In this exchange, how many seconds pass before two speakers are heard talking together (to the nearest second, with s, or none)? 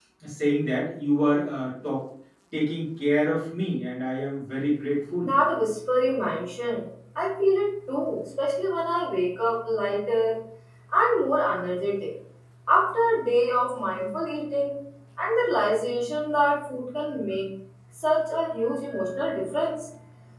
none